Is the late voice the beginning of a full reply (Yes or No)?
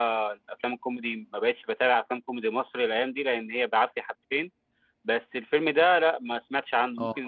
No